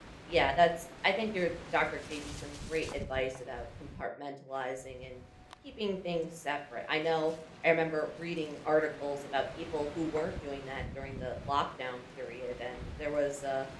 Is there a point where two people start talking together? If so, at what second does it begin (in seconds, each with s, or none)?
none